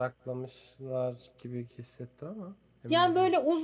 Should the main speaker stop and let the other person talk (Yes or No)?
Yes